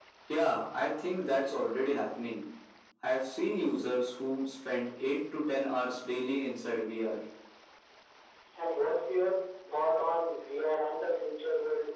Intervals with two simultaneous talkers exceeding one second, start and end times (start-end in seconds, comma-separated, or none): none